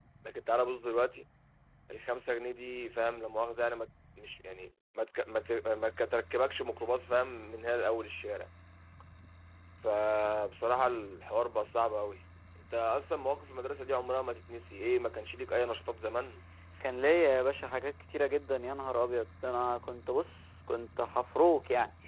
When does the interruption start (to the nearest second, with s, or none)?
none